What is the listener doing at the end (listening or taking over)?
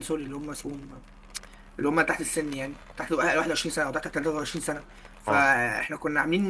listening